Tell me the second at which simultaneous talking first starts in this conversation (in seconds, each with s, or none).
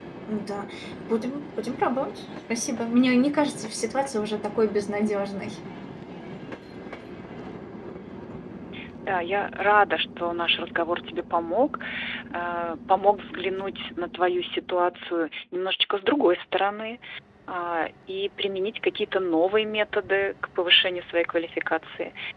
none